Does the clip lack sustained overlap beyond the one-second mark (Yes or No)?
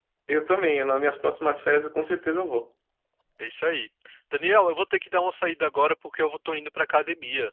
Yes